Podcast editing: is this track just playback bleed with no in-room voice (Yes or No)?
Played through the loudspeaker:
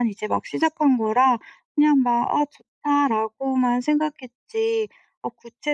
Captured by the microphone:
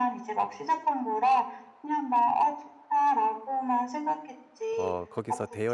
No